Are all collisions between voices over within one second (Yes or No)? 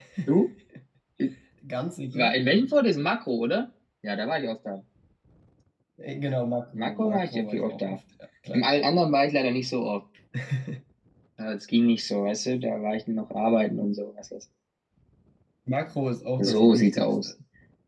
No